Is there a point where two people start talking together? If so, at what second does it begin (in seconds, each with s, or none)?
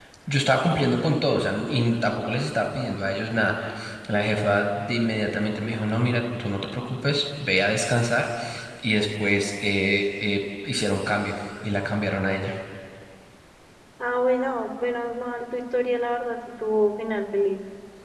none